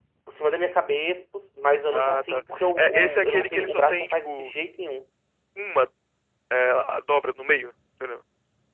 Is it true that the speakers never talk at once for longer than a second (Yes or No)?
No